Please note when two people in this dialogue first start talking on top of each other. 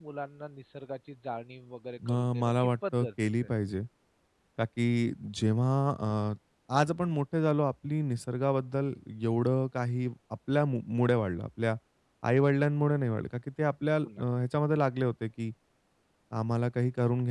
2.1 s

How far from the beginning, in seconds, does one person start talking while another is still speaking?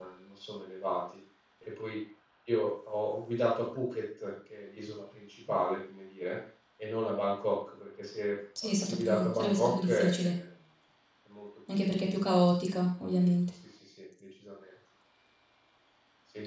8.6 s

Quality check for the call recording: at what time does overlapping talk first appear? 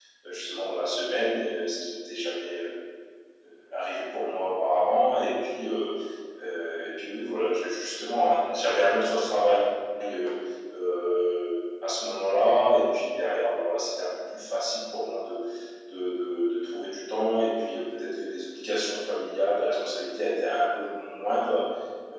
none

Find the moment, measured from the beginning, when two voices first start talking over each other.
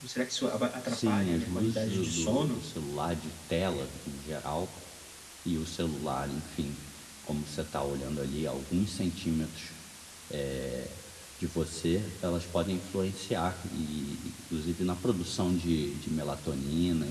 0.8 s

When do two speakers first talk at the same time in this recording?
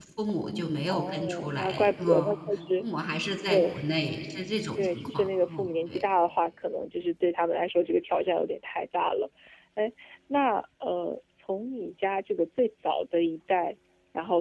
0.9 s

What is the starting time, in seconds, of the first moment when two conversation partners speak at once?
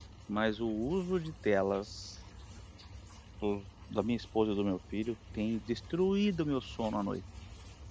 none

